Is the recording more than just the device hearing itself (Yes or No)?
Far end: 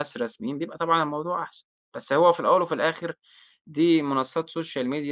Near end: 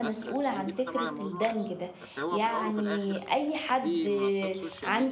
Yes